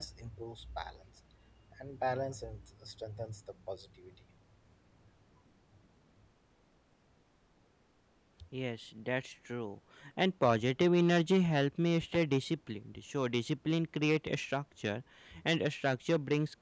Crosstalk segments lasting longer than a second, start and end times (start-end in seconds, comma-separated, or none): none